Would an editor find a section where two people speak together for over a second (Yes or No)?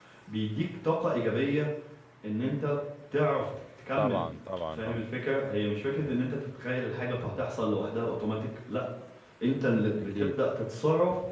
No